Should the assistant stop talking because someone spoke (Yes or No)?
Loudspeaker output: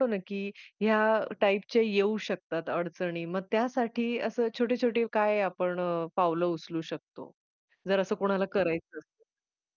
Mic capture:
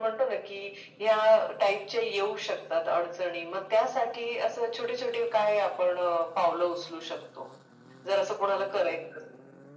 No